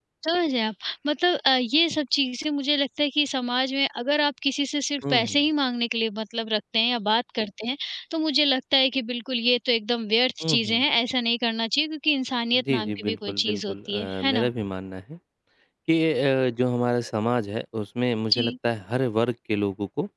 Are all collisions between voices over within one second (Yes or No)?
No